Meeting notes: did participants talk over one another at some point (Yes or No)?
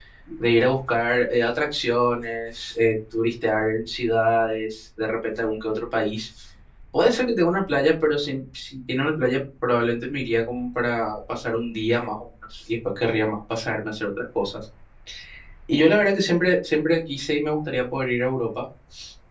No